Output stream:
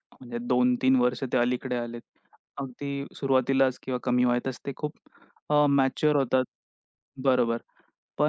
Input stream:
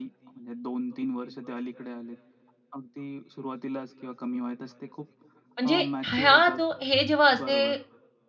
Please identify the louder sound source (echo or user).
user